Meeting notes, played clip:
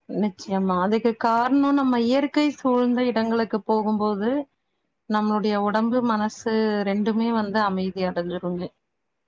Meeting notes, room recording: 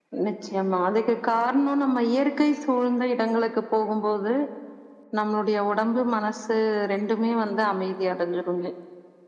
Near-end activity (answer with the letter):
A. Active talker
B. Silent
B